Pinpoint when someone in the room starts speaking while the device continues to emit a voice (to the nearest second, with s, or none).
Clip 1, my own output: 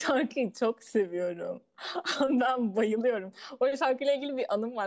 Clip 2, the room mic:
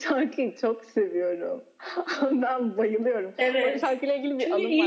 3 s